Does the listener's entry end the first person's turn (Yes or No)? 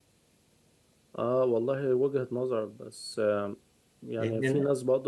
No